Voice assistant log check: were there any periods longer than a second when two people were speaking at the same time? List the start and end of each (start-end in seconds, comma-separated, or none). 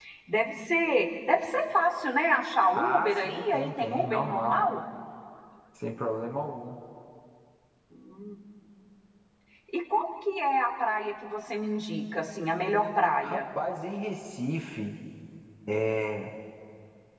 2.7-4.6